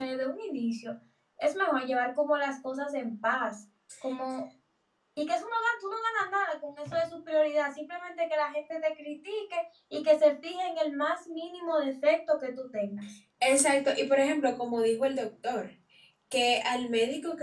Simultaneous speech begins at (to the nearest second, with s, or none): none